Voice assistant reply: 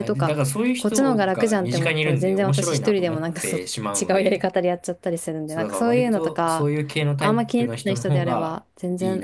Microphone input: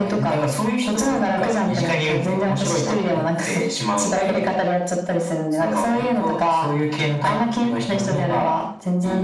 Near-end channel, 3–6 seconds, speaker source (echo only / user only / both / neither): echo only